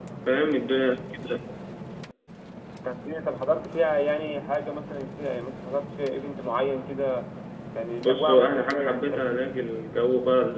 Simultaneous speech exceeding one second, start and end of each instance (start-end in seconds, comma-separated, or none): 8.0-9.4